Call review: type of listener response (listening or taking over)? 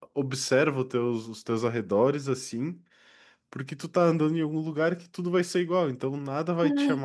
listening